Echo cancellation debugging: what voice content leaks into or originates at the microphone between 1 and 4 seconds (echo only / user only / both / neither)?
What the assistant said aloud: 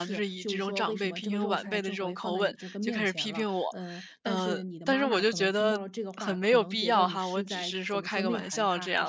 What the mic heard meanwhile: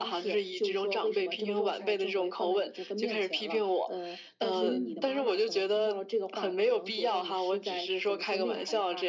echo only